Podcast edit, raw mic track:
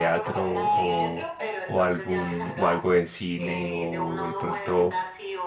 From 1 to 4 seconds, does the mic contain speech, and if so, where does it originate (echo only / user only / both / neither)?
both